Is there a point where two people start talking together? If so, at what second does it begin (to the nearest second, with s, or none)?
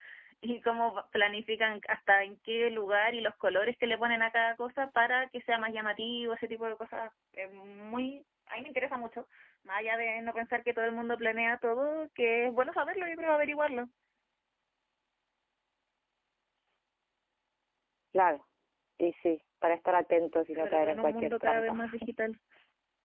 21 s